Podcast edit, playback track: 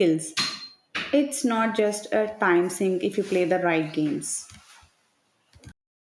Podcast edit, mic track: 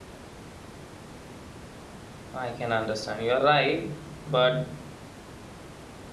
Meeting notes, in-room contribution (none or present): present